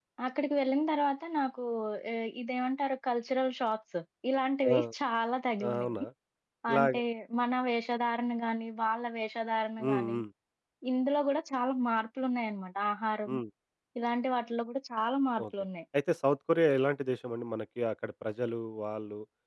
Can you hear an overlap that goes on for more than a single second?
No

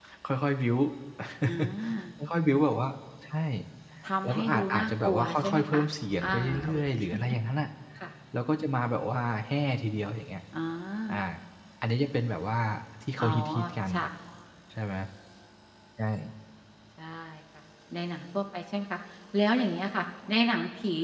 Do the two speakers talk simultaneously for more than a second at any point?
Yes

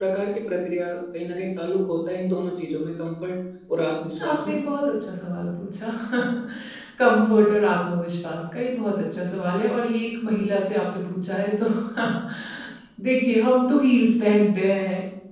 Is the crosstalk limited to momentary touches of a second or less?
Yes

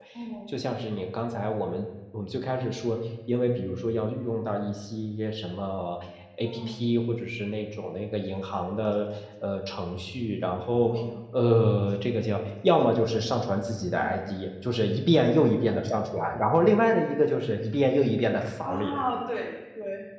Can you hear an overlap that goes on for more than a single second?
No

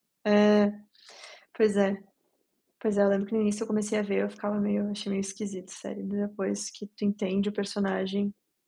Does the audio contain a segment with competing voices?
No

